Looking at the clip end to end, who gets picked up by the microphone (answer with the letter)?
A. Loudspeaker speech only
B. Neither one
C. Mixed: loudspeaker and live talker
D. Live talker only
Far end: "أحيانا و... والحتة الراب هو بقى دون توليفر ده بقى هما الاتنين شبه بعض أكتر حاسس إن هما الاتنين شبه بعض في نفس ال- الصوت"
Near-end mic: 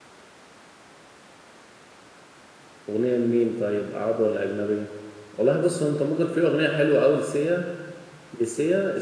D